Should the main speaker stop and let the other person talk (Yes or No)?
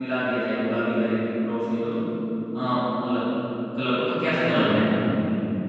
Yes